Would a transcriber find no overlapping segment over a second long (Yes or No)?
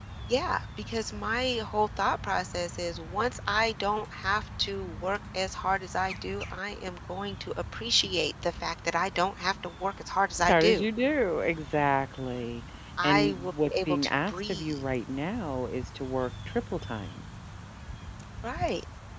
No